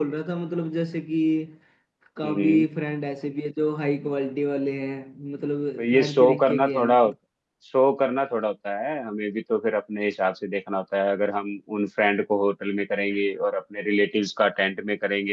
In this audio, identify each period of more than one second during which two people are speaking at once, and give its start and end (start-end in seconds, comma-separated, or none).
5.8-7.1